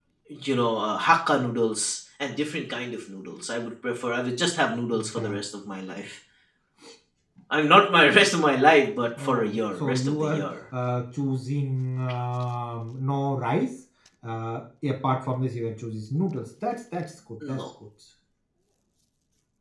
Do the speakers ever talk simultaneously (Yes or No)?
Yes